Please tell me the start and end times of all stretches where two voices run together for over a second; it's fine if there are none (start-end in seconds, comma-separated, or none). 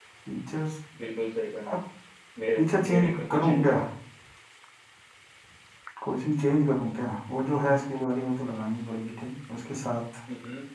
2.5-3.8